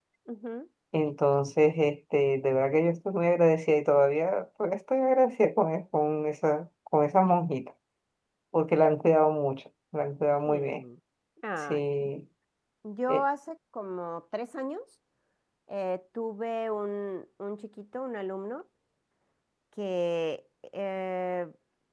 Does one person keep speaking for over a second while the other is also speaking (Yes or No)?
No